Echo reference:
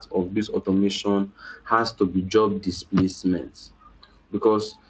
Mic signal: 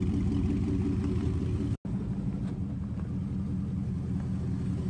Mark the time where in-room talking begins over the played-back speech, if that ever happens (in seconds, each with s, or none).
none